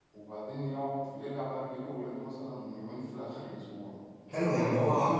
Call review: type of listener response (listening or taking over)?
taking over